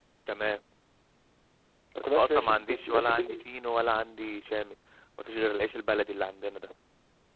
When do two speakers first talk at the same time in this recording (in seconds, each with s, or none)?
2.0 s